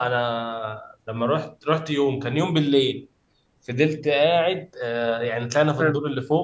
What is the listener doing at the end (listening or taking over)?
listening